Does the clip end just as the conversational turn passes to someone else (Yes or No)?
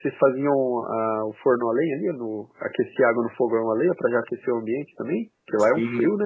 Yes